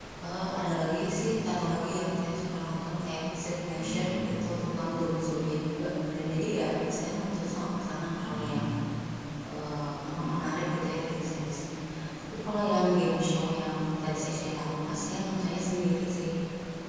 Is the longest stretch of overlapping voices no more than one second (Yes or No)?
Yes